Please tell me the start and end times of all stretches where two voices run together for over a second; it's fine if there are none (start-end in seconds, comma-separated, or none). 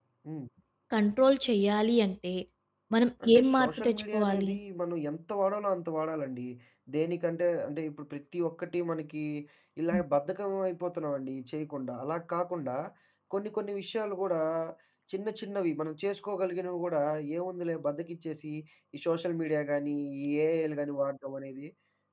3.2-4.5